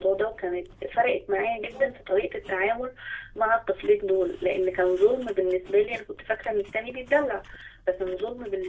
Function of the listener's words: listening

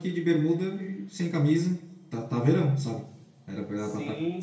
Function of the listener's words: taking over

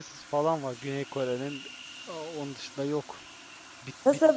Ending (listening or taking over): listening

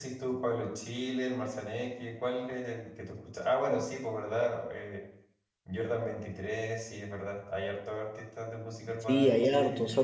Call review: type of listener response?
taking over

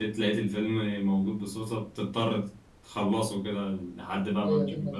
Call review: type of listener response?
taking over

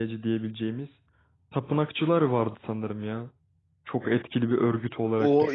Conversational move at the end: taking over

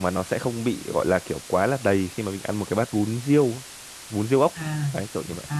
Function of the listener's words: taking over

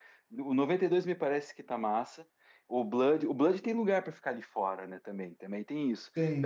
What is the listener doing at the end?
taking over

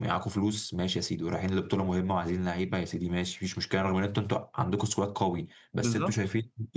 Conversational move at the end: listening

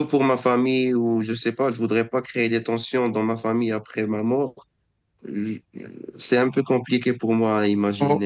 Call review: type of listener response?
taking over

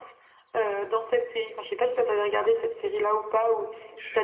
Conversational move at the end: taking over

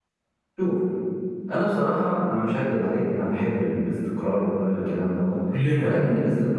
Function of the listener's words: listening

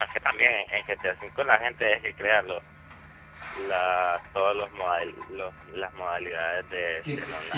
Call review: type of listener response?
taking over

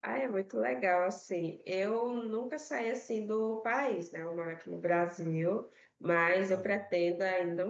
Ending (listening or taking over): listening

